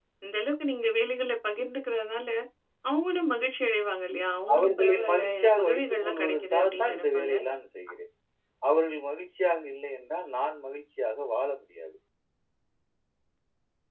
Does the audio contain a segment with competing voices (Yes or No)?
Yes